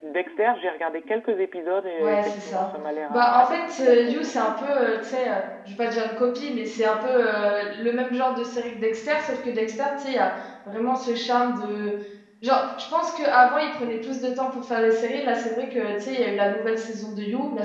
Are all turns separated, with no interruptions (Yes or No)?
No